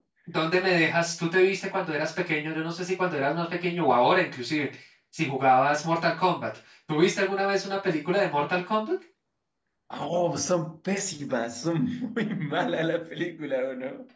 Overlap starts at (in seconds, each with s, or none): none